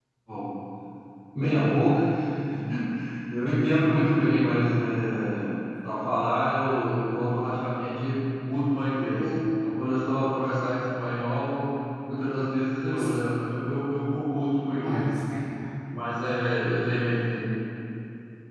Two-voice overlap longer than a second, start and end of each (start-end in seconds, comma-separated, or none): none